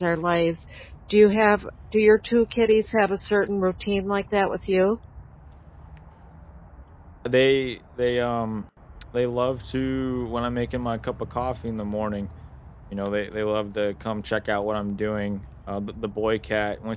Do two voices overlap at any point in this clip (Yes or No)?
No